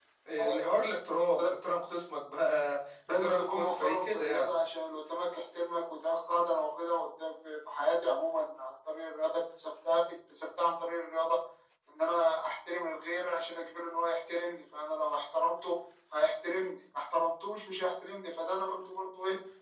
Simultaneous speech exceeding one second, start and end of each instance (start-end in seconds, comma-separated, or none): 3.1-4.6